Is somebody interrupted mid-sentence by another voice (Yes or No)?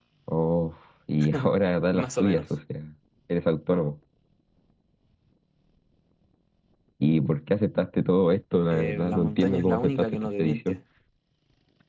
Yes